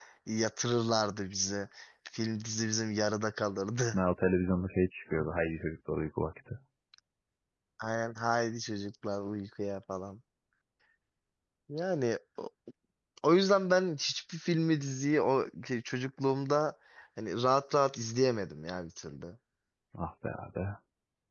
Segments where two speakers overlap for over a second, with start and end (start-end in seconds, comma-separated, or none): none